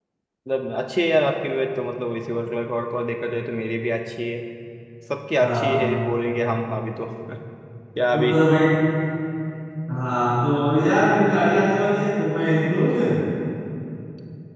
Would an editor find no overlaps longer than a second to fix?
Yes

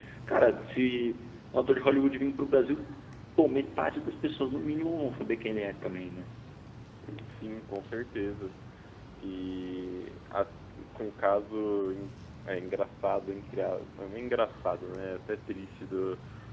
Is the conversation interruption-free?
Yes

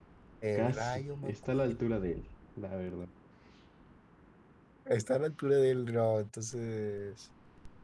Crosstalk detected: Yes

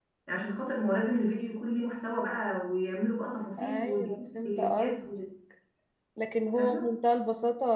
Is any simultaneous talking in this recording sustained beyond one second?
Yes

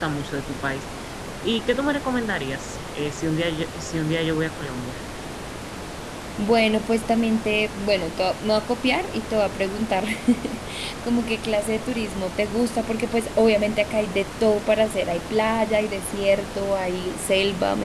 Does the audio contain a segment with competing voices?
No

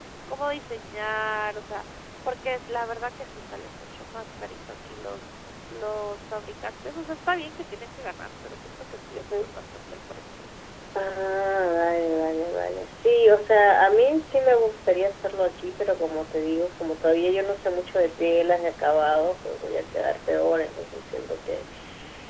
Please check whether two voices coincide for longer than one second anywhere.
No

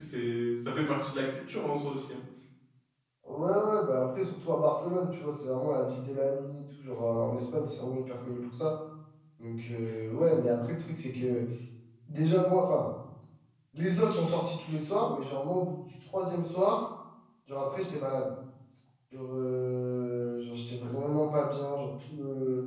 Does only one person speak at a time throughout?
Yes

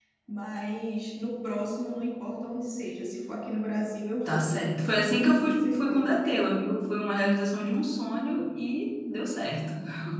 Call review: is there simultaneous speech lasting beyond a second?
Yes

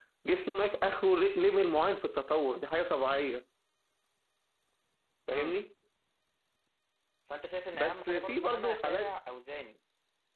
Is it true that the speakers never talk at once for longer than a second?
No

